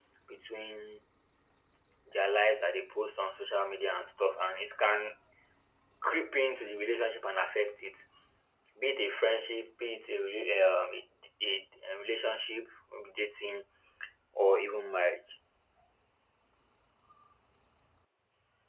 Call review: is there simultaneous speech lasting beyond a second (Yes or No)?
No